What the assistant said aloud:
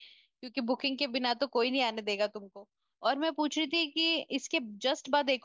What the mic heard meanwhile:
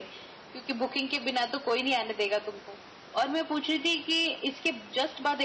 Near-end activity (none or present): none